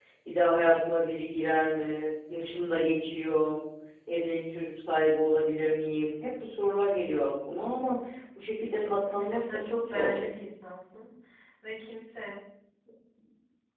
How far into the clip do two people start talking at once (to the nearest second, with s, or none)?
9 s